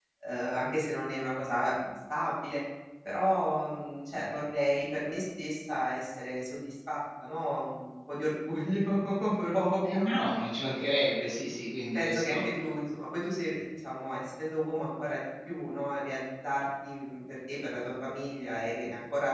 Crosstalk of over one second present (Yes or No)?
No